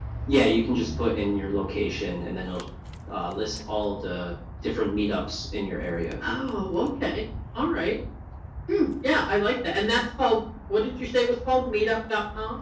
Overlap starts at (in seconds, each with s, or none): none